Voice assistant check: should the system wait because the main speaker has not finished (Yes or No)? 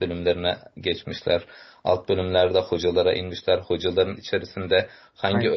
Yes